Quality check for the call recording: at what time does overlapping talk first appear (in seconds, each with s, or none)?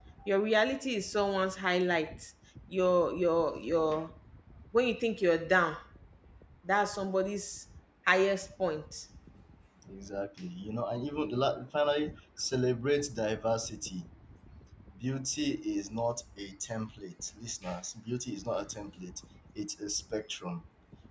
none